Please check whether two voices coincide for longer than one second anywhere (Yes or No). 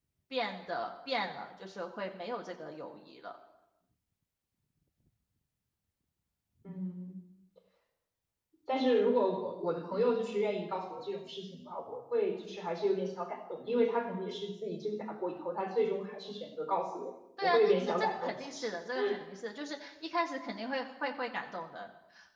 Yes